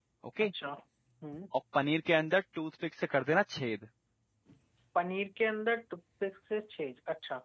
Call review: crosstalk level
none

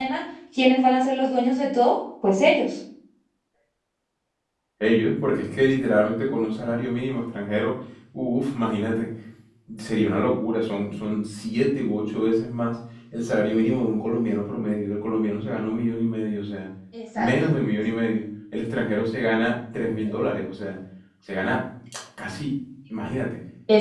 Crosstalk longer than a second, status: none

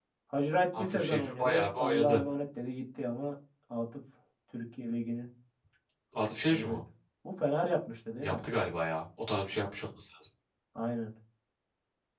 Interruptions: present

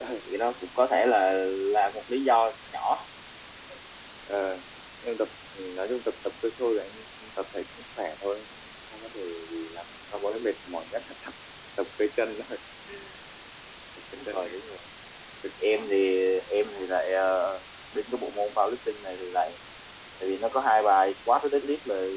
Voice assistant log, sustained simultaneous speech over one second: none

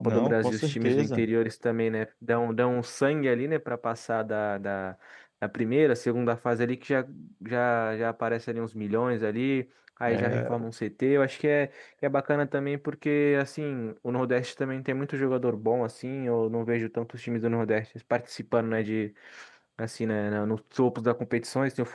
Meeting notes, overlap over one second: present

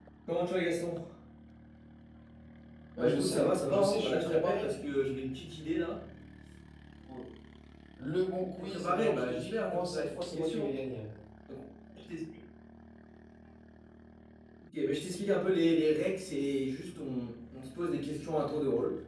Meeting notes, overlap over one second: present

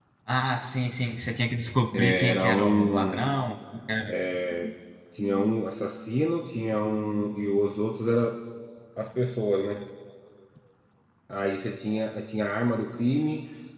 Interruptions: present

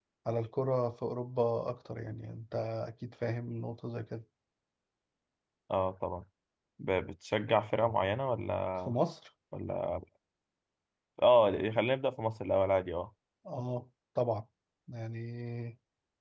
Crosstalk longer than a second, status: none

